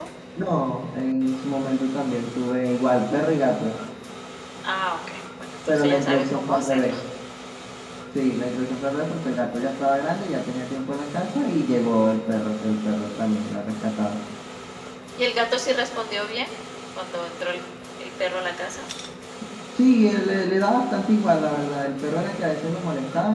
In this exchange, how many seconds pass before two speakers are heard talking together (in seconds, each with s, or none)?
5.7 s